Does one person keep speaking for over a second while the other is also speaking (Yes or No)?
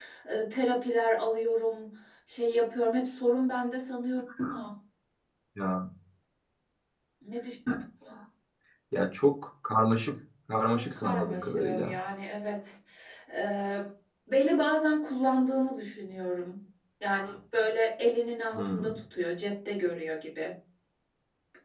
Yes